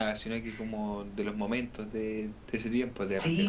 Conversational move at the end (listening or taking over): taking over